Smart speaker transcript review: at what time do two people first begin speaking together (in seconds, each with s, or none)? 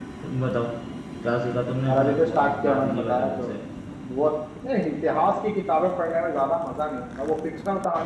1.9 s